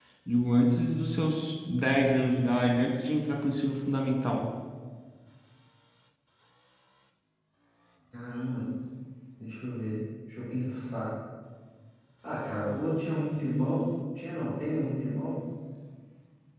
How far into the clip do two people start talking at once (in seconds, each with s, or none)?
none